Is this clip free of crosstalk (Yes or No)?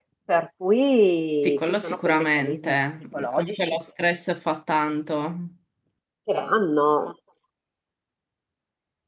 No